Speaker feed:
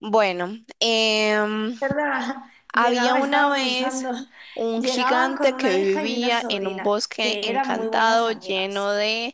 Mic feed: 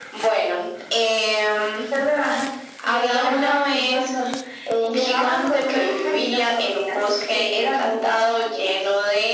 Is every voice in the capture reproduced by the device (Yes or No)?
Yes